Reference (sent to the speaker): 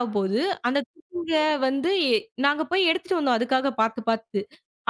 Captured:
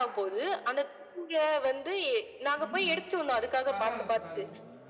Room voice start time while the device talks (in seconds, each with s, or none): 2.6 s